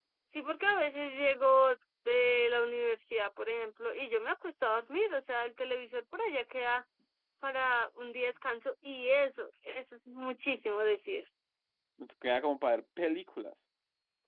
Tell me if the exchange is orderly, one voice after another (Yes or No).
Yes